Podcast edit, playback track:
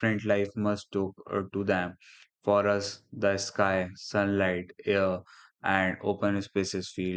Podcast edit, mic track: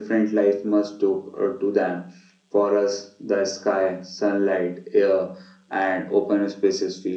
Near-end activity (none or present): none